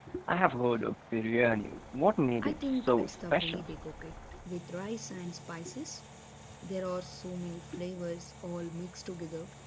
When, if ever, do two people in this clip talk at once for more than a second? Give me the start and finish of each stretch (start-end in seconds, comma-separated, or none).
2.4-3.6